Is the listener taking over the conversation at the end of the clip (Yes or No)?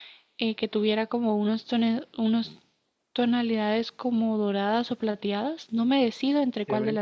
Yes